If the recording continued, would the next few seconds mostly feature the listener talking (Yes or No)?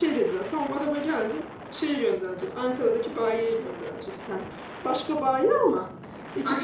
Yes